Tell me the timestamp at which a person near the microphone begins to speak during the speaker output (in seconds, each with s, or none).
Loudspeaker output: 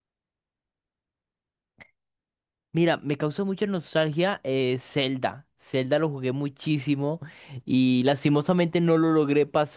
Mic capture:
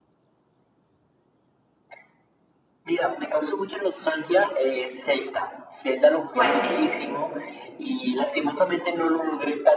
6.3 s